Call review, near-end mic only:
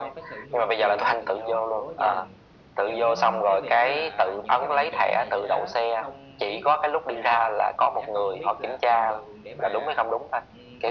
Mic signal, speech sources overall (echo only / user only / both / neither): both